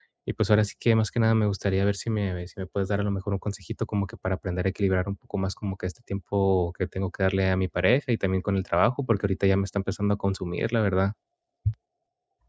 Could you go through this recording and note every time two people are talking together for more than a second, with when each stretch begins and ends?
none

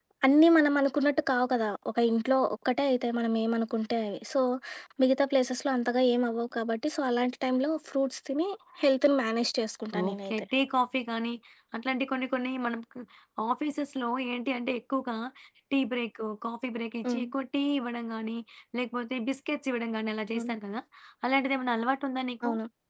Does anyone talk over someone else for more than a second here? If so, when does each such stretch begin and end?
none

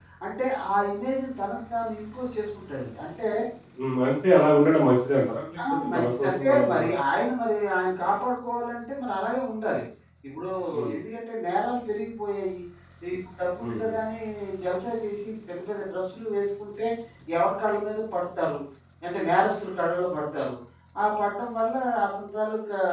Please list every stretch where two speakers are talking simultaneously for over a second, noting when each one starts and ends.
5.7-6.9

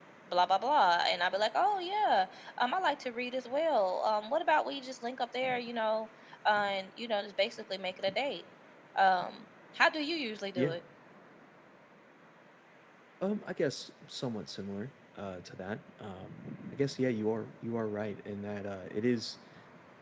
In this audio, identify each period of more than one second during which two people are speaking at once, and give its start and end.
none

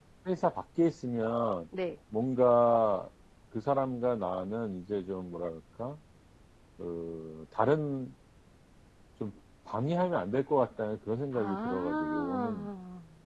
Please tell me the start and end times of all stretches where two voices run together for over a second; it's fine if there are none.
11.3-12.7

